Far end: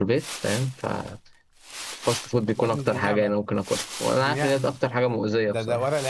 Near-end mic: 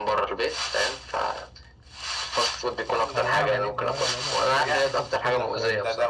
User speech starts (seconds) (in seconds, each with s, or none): 3.0 s